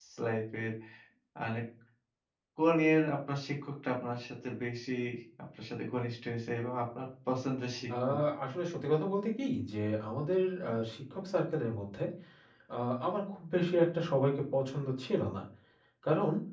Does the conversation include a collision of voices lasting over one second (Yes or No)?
No